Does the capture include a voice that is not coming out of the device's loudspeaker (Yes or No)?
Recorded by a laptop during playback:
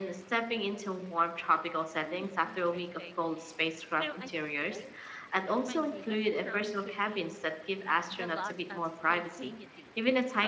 Yes